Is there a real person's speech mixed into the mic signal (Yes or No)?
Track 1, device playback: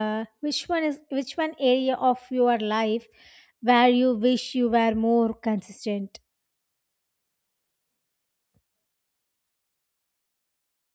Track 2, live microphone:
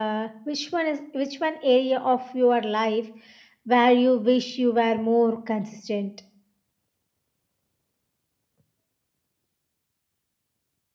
No